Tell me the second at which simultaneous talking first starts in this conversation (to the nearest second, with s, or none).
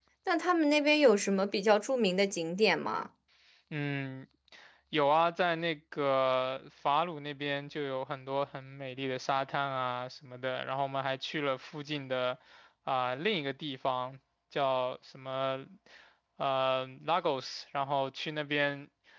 none